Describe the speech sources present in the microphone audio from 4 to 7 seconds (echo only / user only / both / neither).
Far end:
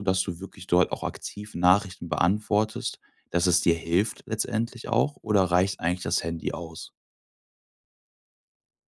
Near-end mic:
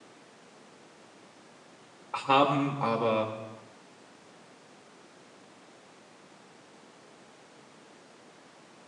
neither